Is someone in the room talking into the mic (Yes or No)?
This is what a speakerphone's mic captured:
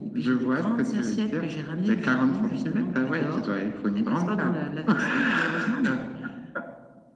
No